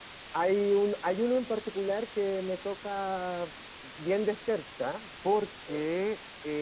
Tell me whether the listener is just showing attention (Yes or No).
Yes